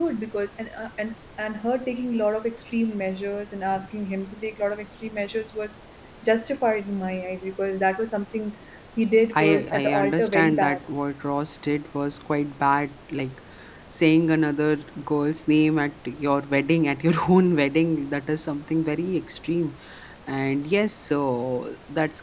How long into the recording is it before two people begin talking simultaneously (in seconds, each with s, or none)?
9.3 s